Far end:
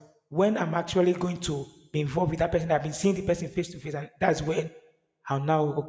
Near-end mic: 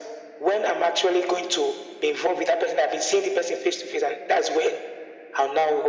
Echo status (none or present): present